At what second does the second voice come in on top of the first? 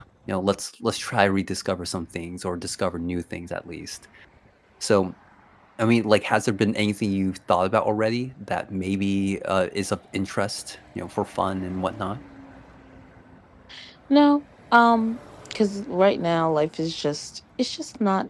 none

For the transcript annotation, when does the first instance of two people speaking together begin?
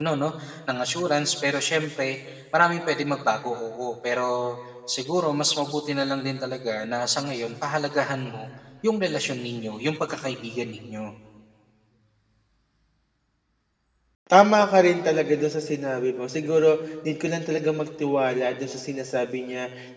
none

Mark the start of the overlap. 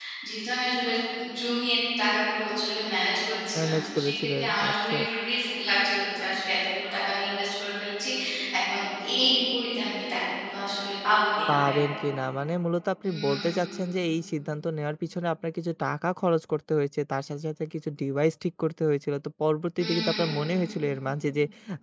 3.5 s

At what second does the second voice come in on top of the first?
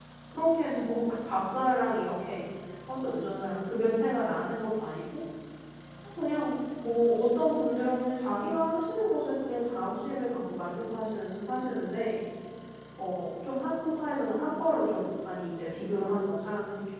none

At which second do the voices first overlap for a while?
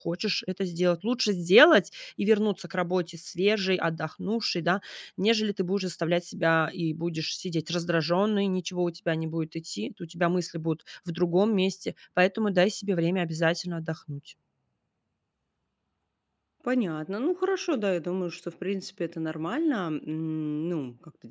none

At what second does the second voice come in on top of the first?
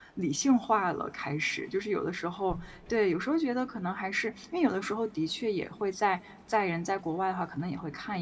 none

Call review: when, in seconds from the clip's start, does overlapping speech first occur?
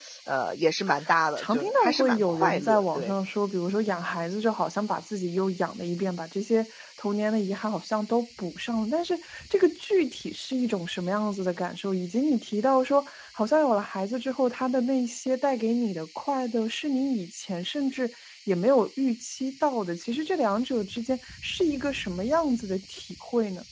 1.4 s

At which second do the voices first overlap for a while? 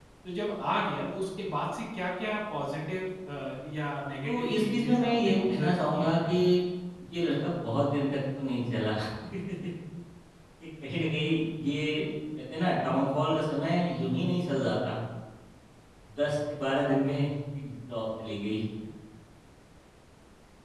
4.2 s

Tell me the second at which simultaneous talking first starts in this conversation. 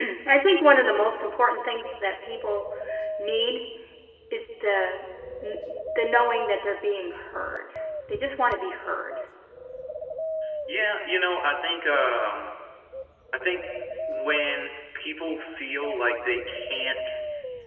none

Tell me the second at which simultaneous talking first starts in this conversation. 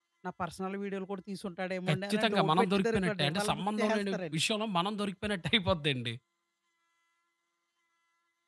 1.9 s

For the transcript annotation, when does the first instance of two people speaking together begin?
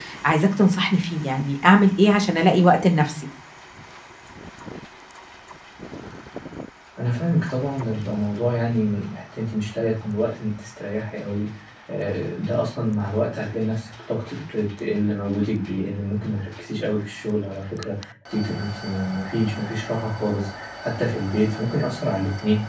none

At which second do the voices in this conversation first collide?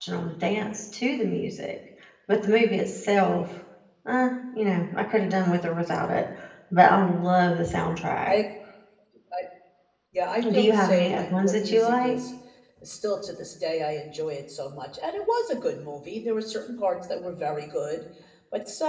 10.4 s

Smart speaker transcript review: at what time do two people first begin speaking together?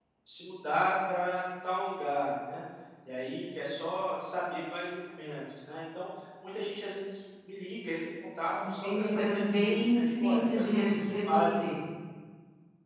8.6 s

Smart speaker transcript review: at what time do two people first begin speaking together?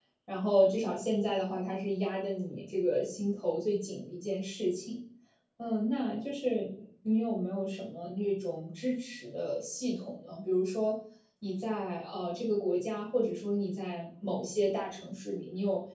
none

